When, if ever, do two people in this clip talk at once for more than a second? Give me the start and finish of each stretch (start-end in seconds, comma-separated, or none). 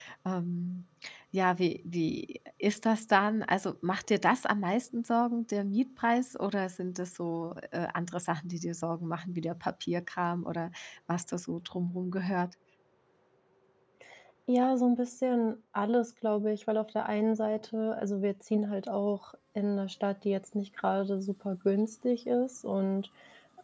none